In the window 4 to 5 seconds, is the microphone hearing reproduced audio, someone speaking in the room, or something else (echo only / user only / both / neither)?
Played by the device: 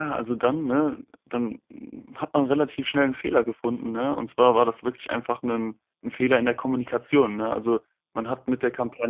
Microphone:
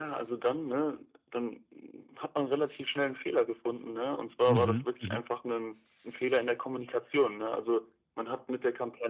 both